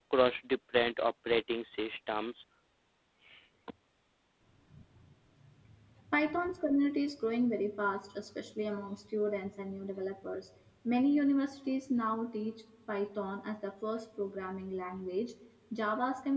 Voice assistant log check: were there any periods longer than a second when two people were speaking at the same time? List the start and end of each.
none

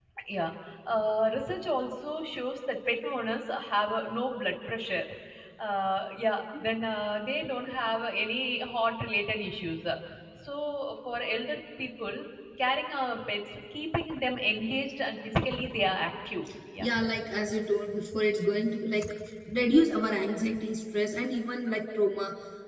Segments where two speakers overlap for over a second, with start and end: none

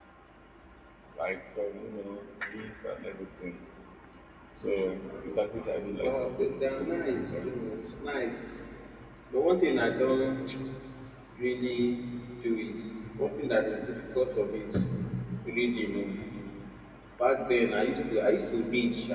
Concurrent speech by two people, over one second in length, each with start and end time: 6.0-7.5

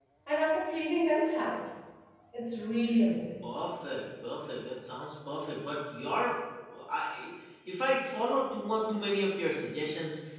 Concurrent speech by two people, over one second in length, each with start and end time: none

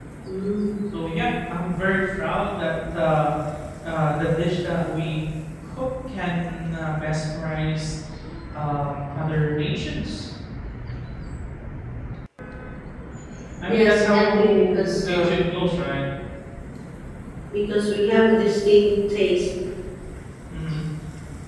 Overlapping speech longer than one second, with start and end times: 13.7-15.4

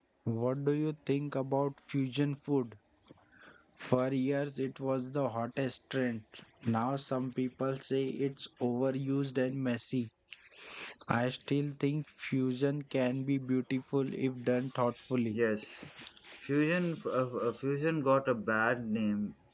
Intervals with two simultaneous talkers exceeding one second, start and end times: none

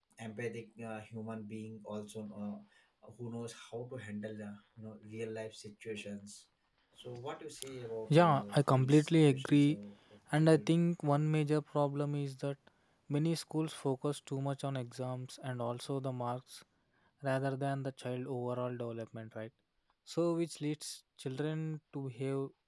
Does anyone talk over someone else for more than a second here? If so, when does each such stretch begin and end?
8.1-9.8

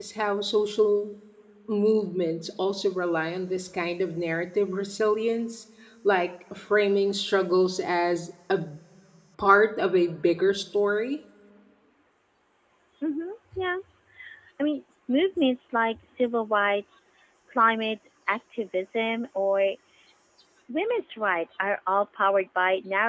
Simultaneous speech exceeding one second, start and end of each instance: none

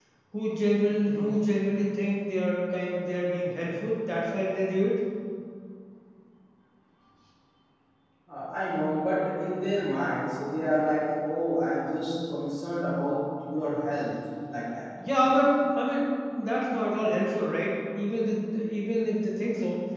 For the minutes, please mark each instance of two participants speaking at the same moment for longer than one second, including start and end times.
none

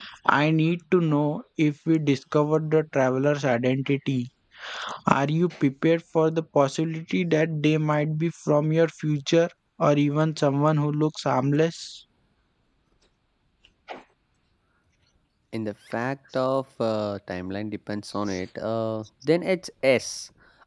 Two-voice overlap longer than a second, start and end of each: none

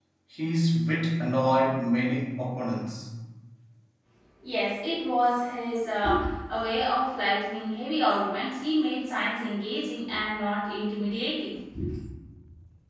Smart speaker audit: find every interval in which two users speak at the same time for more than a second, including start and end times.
none

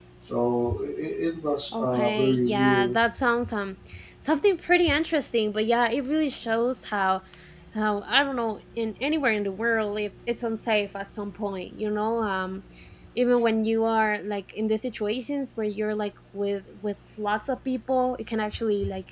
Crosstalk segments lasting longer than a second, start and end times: 1.7-3.0

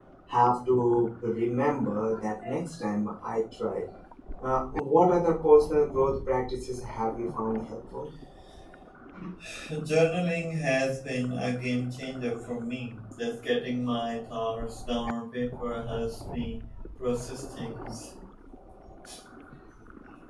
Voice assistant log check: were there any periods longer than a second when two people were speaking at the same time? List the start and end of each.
none

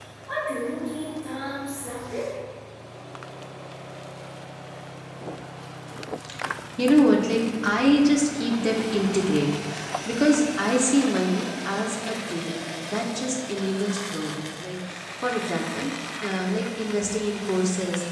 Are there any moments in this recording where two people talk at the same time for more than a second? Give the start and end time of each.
none

